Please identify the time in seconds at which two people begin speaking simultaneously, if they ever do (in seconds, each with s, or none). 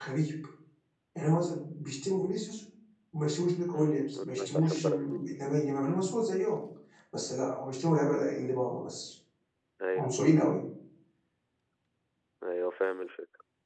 3.7 s